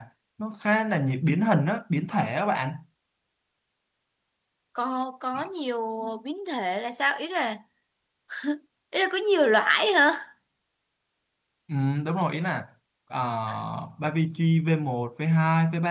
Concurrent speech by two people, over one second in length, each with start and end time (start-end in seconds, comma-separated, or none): none